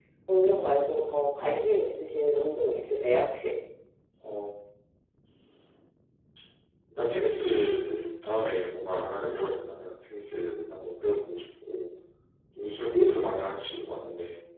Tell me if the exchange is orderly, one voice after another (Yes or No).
Yes